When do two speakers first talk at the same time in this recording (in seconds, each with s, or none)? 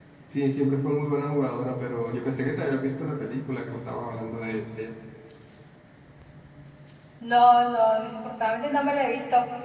none